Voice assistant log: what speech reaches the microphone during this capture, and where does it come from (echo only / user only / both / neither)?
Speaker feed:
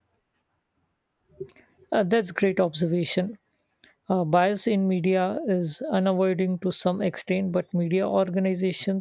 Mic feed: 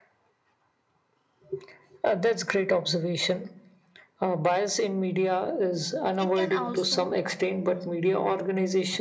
both